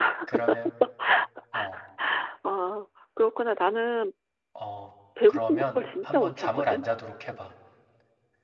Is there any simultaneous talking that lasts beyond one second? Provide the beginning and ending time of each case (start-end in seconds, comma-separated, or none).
5.3-6.8